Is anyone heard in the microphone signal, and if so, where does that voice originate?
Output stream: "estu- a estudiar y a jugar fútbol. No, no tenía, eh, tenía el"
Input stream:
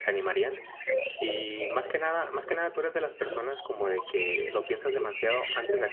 both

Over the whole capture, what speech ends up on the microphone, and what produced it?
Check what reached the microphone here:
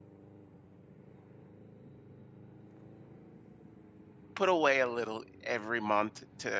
user only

